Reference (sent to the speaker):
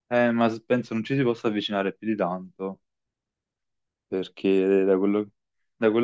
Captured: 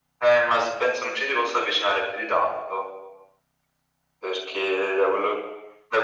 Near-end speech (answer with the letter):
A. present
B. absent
B